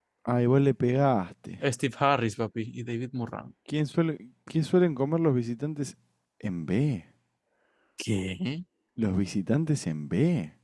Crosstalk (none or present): none